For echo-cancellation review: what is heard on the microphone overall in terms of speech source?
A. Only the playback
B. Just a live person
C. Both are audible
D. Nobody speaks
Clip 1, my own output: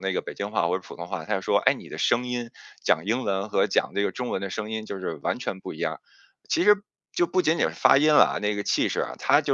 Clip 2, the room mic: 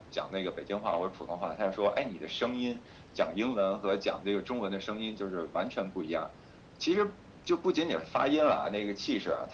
A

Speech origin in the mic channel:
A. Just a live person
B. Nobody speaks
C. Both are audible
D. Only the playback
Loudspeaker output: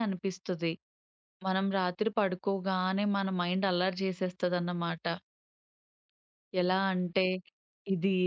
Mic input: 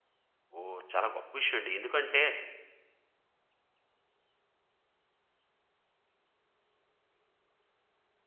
A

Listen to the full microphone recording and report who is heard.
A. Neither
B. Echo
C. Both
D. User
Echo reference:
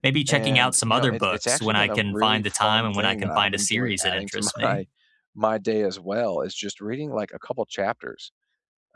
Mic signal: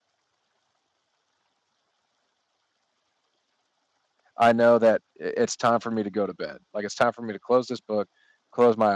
D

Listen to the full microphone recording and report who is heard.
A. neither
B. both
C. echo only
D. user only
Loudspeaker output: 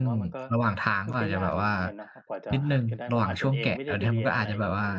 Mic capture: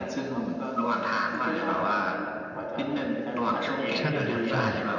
B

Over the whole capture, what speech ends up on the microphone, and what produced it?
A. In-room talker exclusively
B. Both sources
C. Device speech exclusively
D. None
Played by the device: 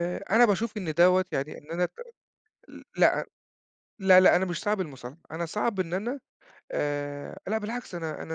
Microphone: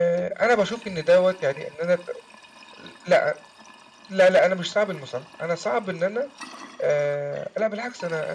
C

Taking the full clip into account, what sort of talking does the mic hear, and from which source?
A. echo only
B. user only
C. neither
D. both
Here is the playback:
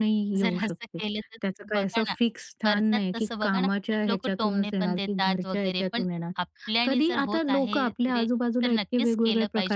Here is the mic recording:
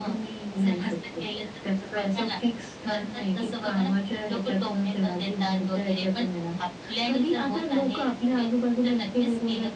A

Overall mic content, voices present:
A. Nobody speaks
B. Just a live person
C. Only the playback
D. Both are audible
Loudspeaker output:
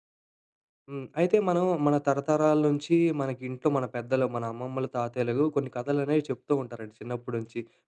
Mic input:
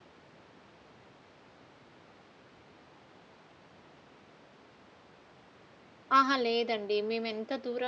B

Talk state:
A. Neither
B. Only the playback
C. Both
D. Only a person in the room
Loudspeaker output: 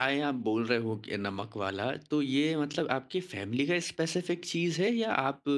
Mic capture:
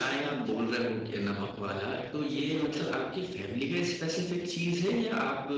C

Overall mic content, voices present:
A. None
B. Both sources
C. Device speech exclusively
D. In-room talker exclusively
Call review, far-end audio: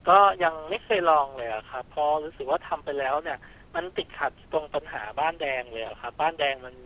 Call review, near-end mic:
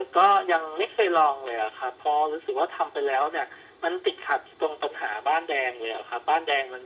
C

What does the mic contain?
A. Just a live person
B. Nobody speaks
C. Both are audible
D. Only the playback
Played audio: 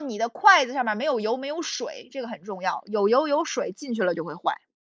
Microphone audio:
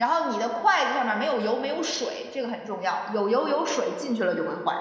D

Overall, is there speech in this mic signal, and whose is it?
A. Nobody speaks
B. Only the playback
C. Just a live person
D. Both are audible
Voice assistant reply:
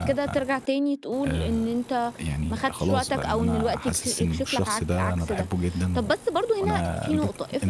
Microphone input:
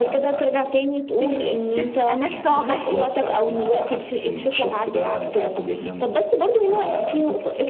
D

